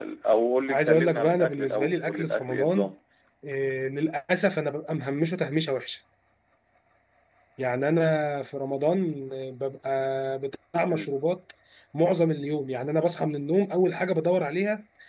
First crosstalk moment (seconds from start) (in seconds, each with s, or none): 0.7 s